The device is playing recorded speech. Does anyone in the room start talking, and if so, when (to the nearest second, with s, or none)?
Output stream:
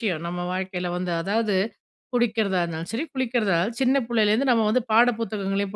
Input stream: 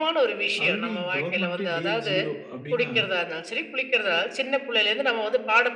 1 s